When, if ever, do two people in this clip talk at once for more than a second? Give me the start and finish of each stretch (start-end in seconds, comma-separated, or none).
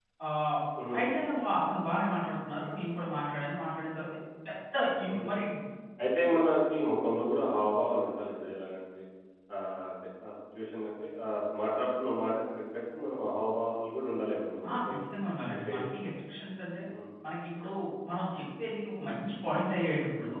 none